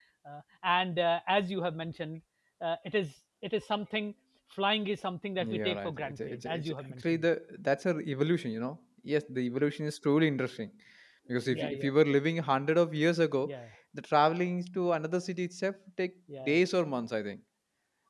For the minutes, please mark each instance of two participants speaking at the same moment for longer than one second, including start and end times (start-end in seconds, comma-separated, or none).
5.4-7.2